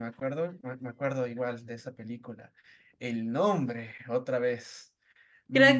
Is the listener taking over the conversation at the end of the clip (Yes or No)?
Yes